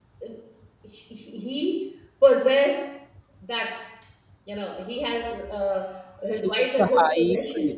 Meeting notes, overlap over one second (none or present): present